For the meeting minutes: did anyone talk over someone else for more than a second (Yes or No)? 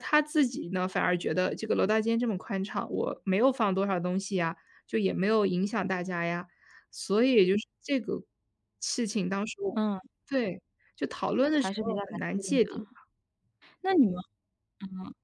Yes